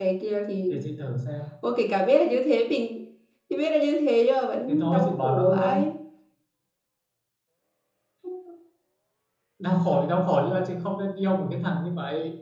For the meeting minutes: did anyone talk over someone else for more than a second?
Yes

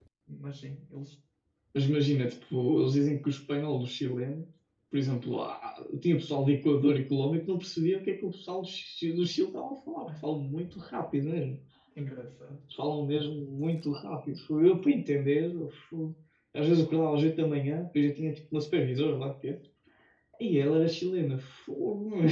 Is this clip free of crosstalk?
Yes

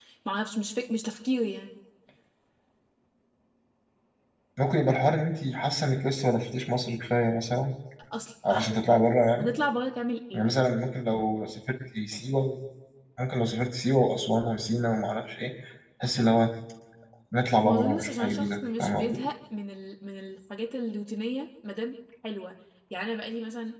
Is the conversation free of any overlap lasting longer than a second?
No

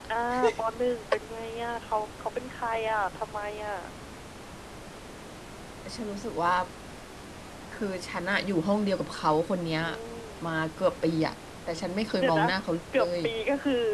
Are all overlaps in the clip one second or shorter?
Yes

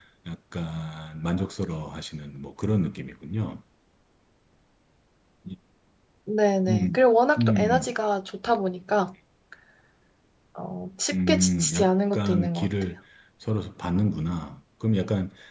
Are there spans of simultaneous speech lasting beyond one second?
Yes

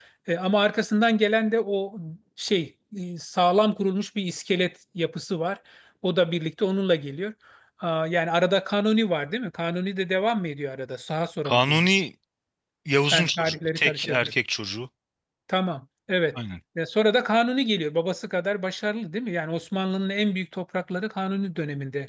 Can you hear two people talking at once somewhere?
Yes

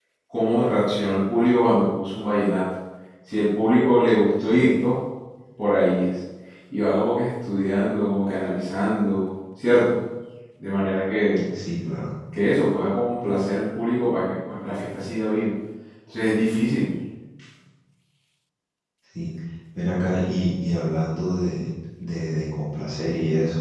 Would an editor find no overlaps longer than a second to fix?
Yes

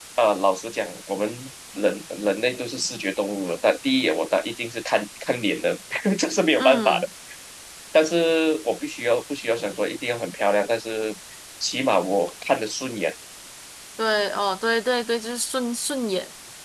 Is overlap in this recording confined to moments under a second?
Yes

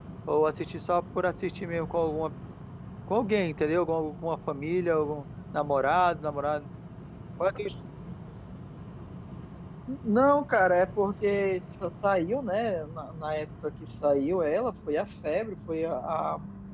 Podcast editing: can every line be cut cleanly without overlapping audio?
Yes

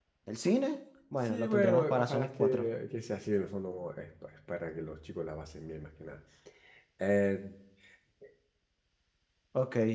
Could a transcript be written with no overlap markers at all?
No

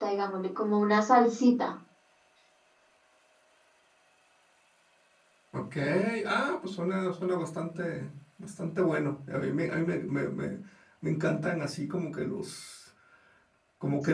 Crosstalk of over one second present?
No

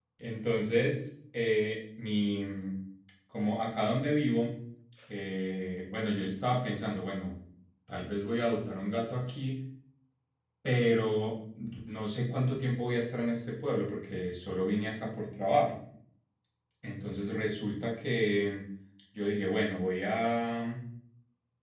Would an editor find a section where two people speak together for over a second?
No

